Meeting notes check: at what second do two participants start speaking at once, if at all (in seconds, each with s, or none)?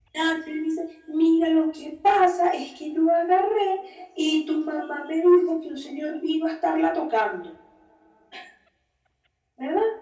none